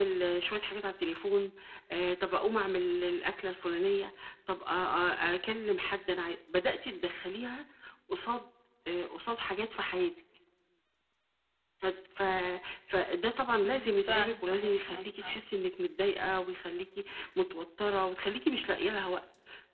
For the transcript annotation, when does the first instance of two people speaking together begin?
14 s

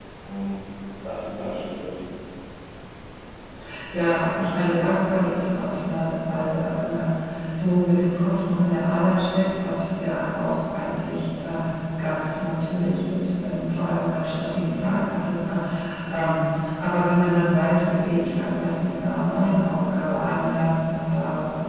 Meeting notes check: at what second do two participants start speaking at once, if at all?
none

